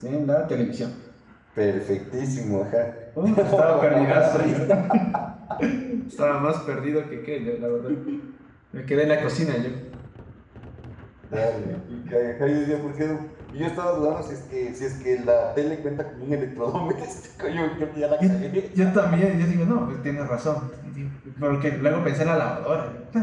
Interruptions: present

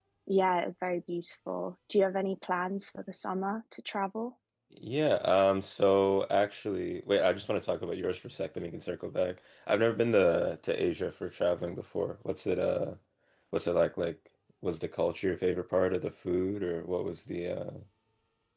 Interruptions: none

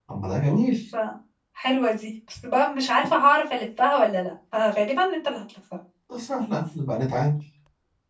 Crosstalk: none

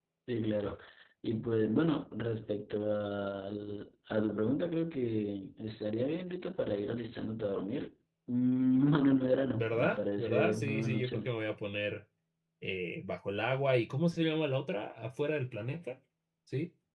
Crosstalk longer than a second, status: present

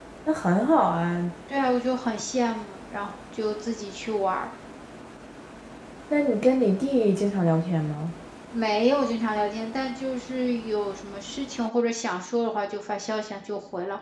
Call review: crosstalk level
none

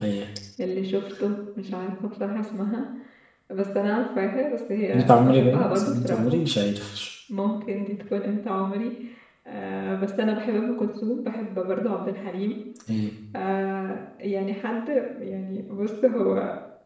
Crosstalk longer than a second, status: present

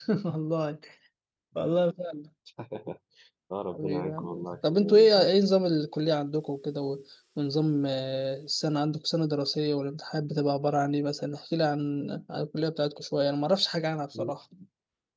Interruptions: present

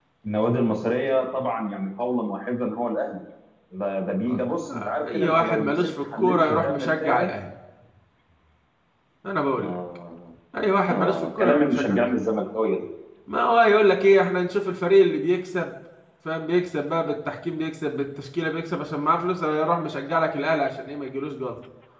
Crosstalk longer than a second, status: present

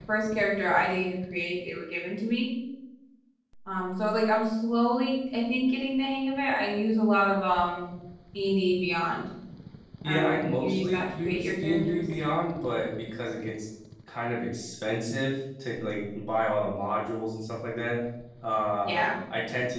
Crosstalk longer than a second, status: present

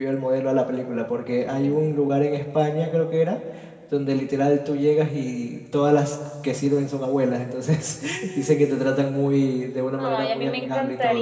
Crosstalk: present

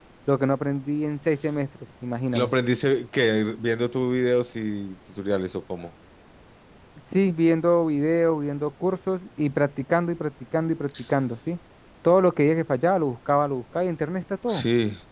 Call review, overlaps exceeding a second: none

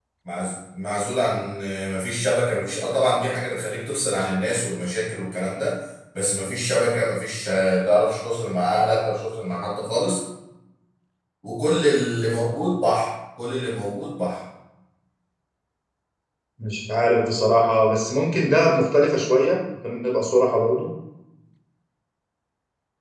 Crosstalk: none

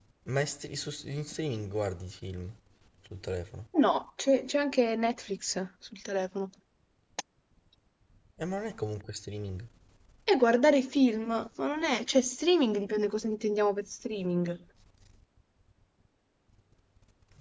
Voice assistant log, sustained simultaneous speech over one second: none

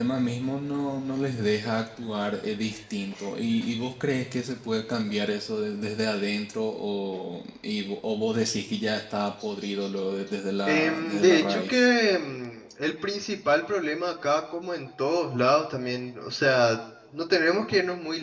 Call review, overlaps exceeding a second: present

